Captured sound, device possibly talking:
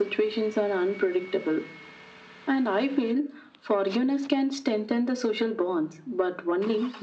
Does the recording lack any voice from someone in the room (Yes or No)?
Yes